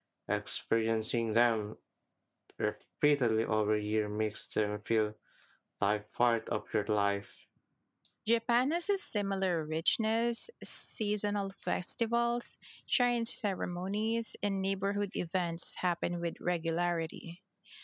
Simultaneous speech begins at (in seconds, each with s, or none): none